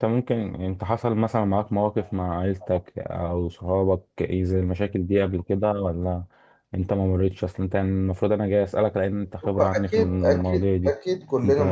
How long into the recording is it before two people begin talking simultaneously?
10 s

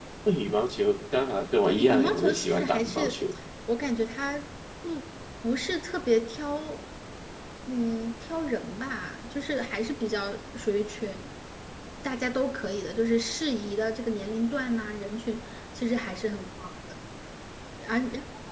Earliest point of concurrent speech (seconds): 2 s

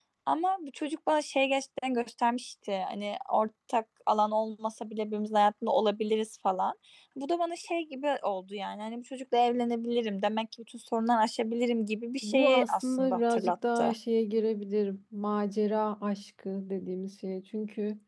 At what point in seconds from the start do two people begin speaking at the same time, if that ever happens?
12 s

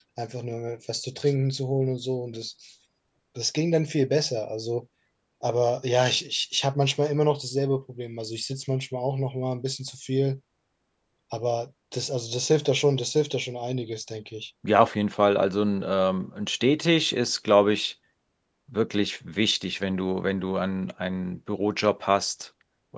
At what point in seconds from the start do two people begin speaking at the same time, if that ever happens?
none

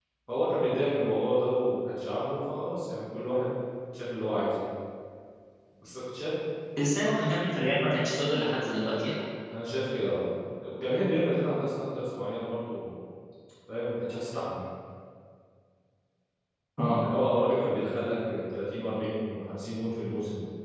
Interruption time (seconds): none

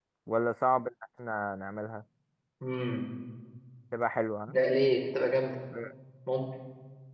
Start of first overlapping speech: none

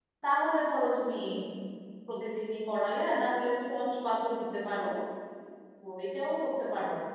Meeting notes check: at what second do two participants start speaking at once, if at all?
none

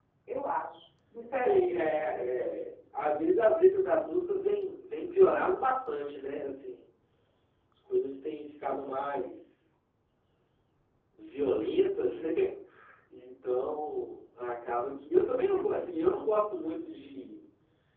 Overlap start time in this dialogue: 1 s

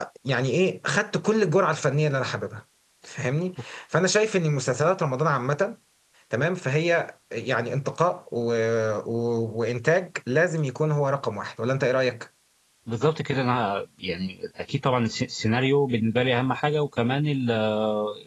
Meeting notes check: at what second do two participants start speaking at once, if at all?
none

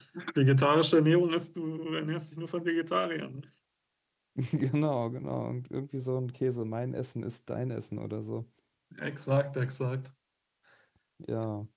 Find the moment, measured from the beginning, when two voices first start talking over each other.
none

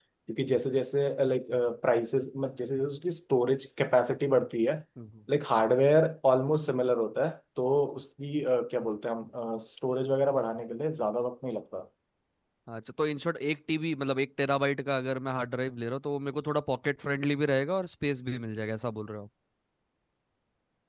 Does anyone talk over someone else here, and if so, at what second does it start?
none

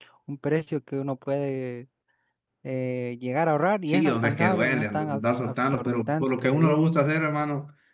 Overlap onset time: 4 s

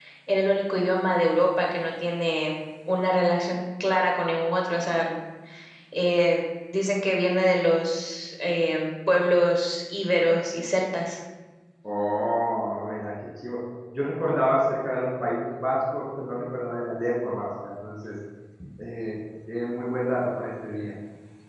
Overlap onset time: none

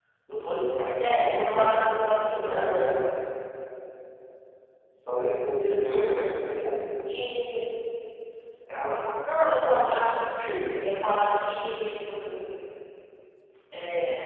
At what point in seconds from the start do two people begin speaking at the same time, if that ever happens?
1 s

